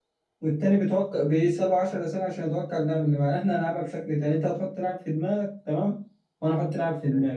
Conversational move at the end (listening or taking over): listening